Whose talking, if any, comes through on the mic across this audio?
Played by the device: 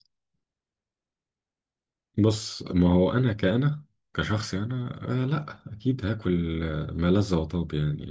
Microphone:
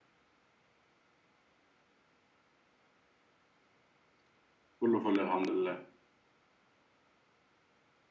user only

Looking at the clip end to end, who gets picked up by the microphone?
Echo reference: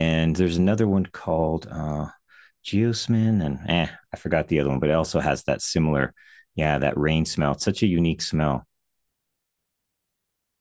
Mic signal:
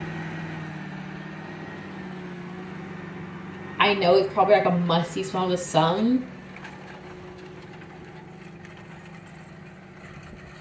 user only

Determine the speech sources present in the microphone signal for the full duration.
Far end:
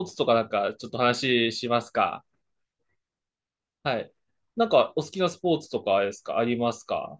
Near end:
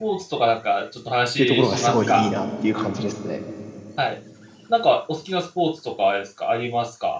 both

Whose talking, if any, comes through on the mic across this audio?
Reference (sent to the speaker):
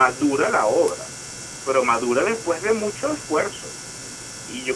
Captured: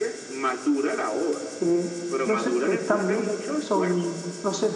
both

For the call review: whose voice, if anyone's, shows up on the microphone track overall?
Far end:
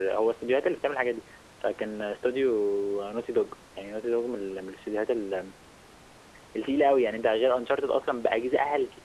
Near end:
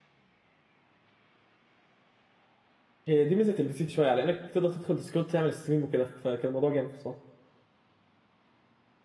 user only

